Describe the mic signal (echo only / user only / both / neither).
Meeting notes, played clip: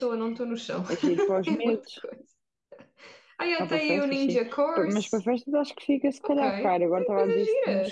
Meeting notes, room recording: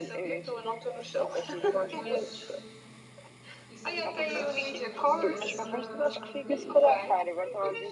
both